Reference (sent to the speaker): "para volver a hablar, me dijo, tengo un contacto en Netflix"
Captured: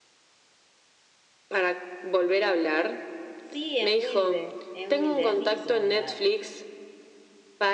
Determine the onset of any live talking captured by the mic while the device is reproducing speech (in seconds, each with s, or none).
3.5 s